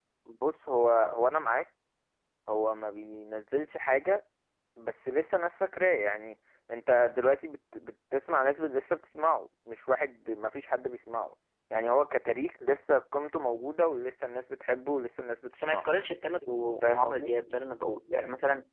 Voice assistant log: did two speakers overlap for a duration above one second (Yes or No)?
No